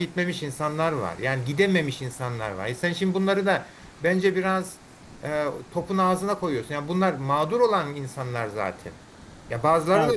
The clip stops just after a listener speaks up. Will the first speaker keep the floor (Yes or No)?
Yes